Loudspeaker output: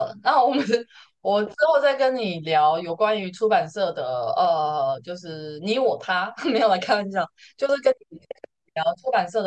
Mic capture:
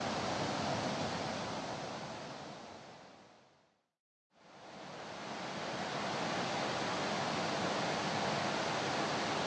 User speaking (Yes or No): No